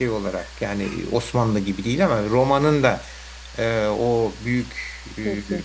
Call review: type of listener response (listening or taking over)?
listening